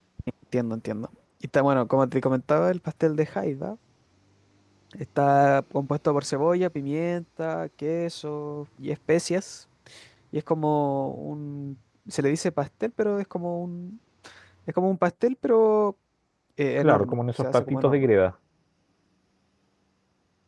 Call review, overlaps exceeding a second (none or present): present